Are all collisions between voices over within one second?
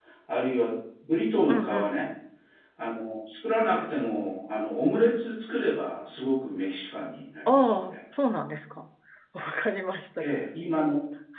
Yes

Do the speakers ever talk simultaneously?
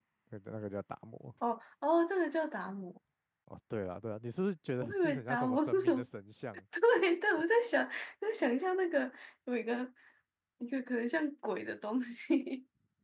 Yes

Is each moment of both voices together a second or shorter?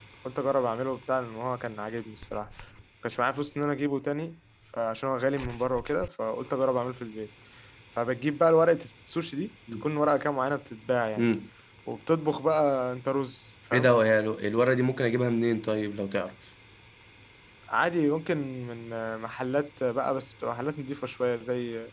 Yes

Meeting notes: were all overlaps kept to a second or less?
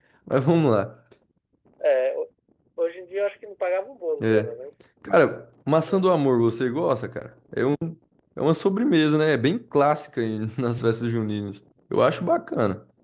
Yes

